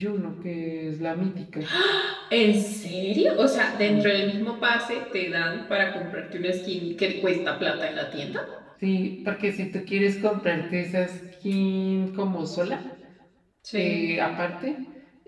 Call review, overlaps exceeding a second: none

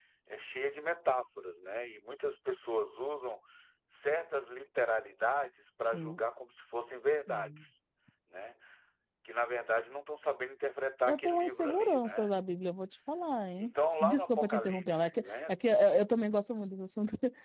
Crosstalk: present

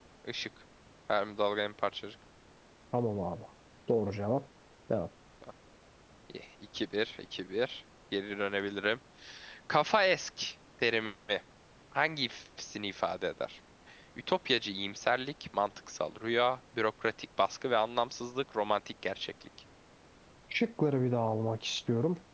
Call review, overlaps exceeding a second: none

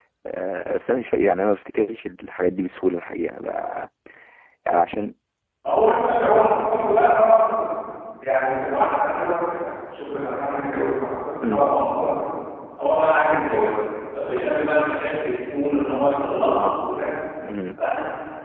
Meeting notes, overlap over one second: none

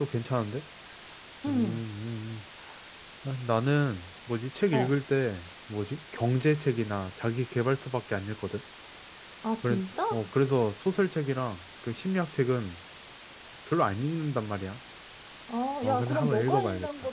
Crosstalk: present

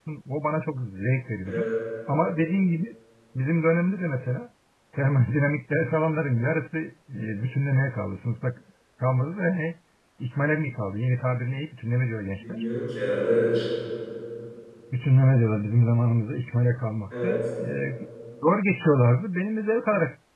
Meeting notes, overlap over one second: none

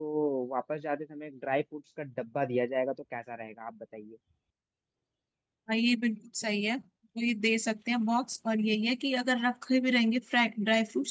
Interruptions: none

